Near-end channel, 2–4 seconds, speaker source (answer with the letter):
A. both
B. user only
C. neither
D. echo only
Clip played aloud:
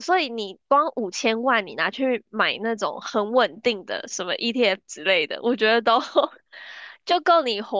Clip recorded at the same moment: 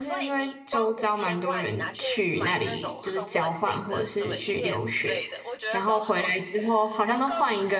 A